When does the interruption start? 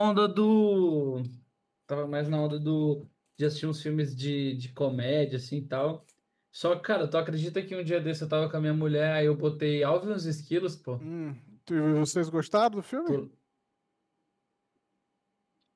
none

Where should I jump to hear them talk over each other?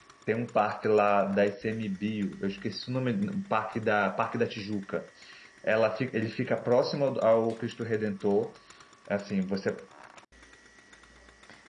none

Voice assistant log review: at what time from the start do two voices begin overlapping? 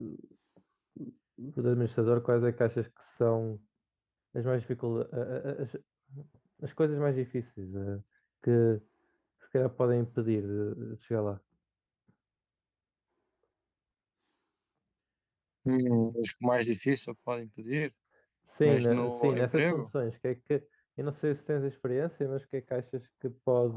19 s

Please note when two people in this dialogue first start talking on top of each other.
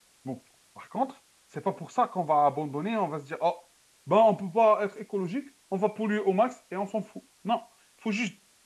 none

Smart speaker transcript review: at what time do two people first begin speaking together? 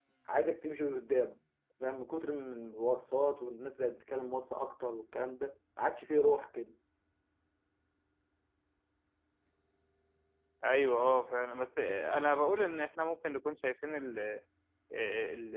none

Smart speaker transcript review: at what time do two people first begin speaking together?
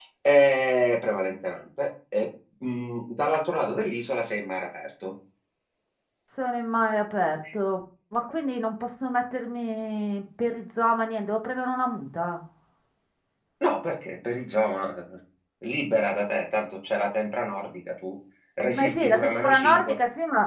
19 s

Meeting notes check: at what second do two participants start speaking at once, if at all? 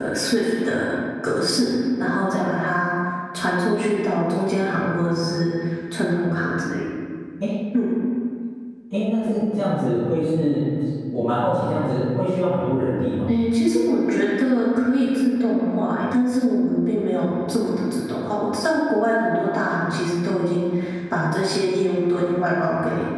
none

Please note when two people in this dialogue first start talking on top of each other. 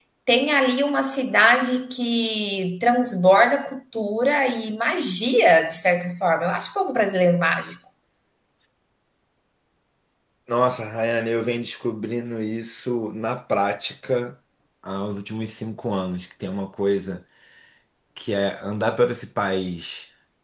none

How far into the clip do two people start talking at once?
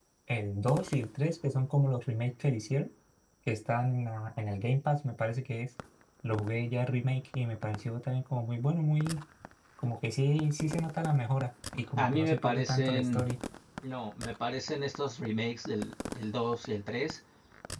12 s

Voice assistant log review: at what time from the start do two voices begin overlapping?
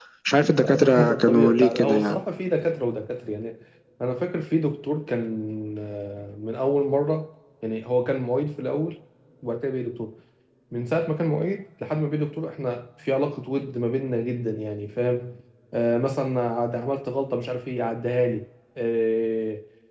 1 s

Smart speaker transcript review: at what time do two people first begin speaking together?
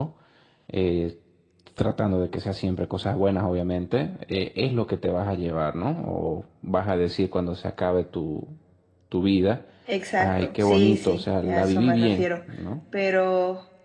10 s

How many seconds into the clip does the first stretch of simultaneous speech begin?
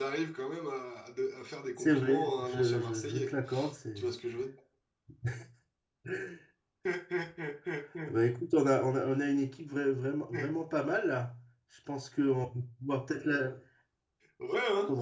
2 s

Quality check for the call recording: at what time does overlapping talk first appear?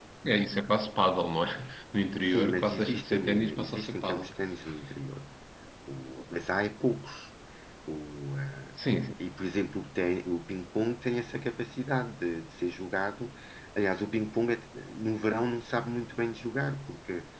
2 s

